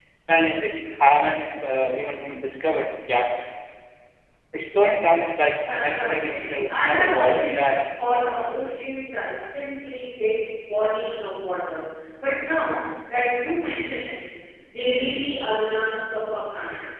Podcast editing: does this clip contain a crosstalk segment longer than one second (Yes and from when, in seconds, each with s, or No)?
Yes, from 5.7 s